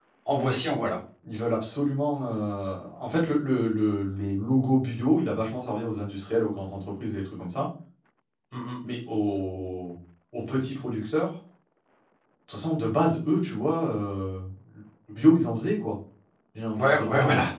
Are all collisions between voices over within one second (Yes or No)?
Yes